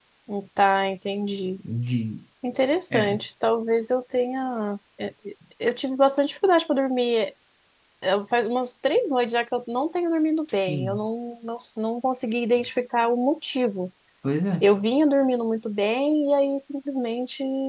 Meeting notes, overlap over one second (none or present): none